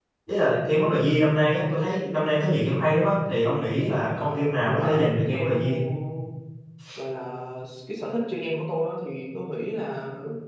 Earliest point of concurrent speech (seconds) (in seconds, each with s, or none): 4.1 s